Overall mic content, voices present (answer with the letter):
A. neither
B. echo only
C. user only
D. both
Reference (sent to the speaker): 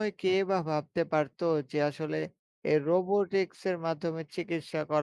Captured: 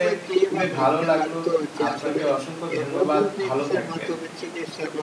D